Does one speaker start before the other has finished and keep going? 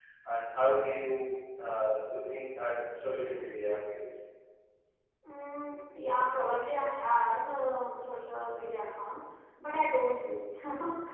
No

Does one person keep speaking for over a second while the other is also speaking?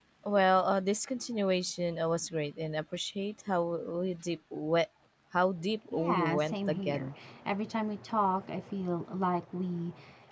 Yes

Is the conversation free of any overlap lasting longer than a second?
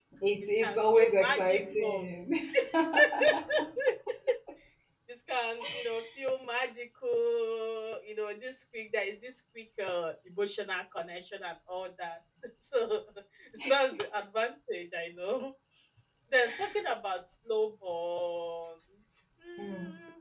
No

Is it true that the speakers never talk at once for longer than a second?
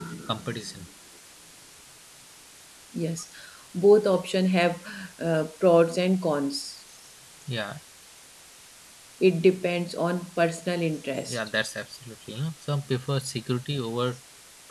Yes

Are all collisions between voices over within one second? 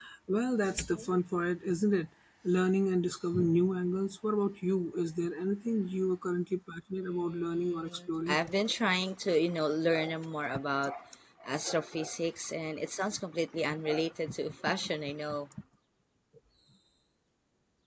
No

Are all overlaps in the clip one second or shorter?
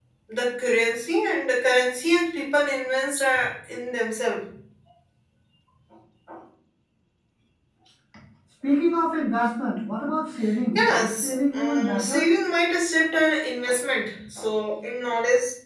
No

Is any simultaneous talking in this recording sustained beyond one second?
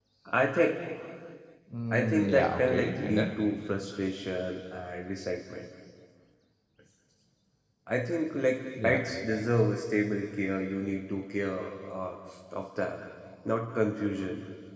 Yes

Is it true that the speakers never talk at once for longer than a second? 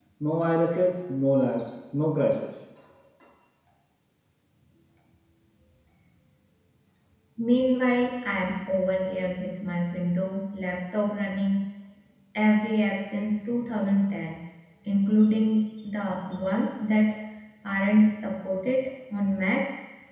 Yes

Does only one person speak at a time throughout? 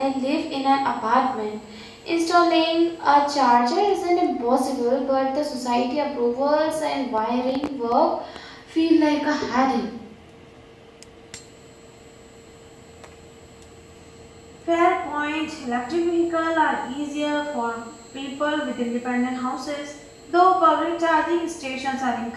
Yes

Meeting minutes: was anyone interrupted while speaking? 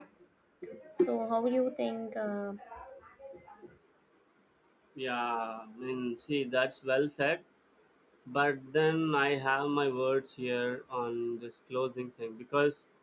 No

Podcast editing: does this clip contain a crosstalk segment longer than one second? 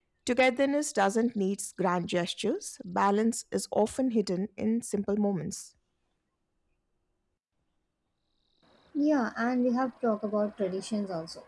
No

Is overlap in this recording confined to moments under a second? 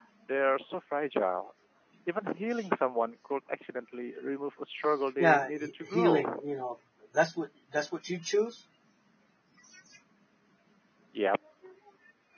No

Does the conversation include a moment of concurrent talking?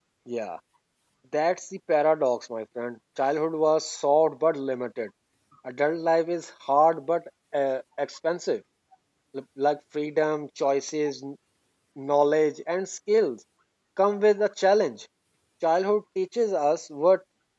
No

